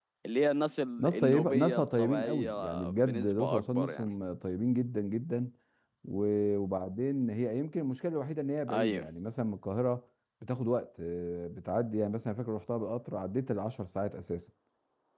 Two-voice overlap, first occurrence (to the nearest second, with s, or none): 1 s